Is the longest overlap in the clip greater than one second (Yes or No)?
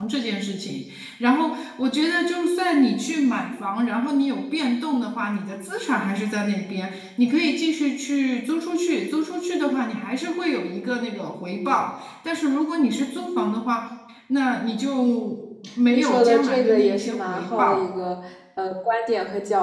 Yes